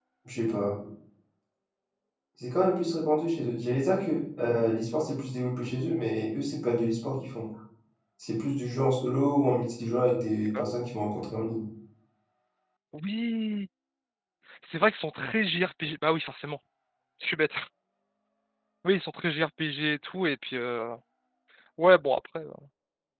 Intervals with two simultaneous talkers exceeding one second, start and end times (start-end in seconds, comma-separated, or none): none